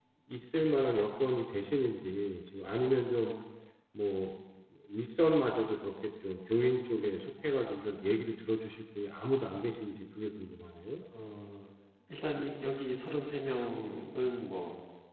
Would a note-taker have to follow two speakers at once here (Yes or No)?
No